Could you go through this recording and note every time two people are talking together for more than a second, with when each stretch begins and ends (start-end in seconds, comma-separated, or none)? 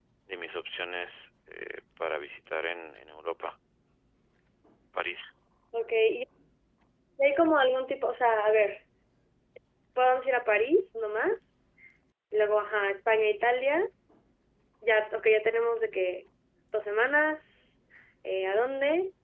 none